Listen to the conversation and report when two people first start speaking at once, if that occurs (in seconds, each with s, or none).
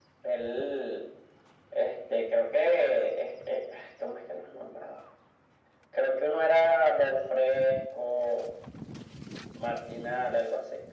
none